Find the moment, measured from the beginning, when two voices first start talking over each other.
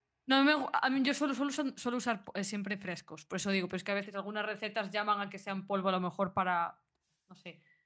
none

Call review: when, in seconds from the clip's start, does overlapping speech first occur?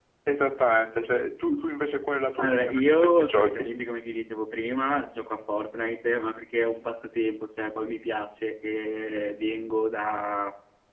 2.4 s

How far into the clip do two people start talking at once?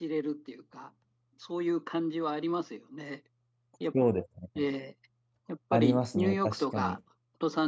5.7 s

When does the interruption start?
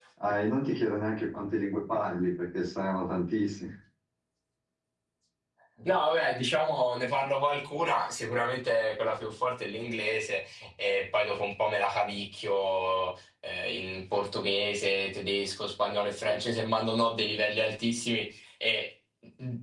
none

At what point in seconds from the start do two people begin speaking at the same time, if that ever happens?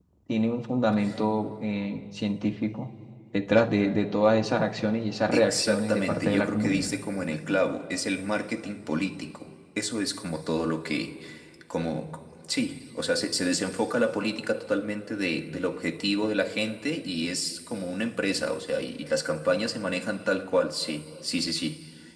5.3 s

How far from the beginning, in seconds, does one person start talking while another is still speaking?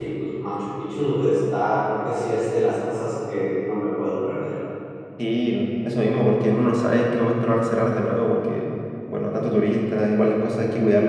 none

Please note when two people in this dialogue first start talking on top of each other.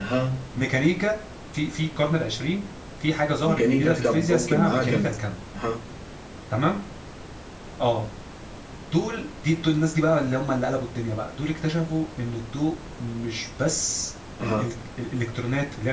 3.4 s

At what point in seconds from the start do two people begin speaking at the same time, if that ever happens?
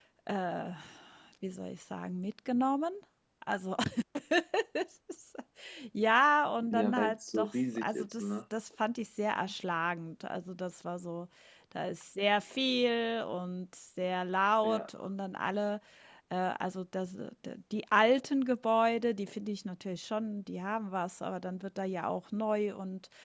6.7 s

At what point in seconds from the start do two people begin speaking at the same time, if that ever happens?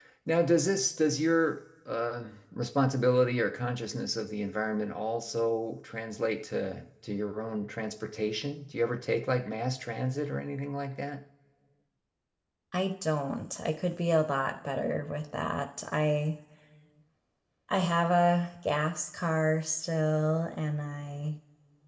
none

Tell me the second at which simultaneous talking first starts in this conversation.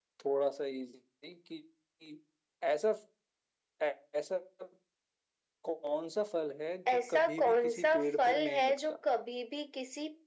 6.9 s

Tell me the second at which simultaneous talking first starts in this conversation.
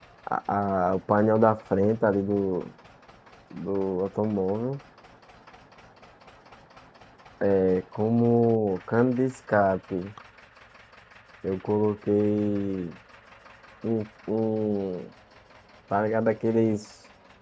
none

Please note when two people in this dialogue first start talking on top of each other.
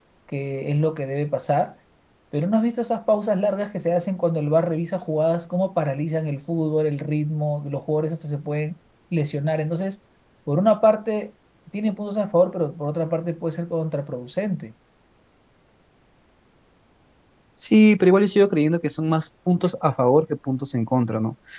none

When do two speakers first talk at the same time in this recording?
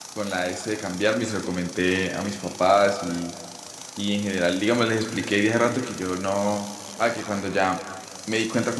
none

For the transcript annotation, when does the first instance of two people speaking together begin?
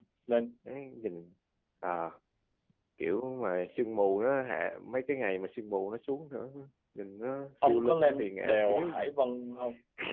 7.7 s

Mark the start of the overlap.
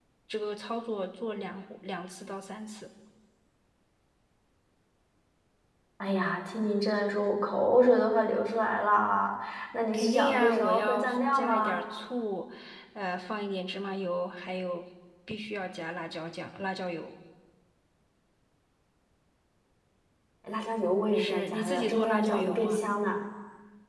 9.9 s

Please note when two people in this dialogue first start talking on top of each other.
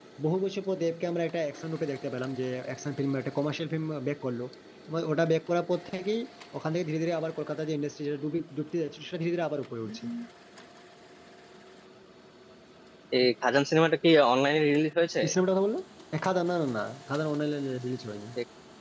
none

